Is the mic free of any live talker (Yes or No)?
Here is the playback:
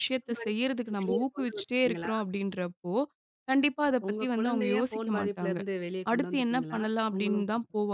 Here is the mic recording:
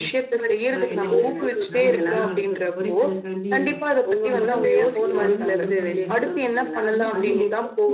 No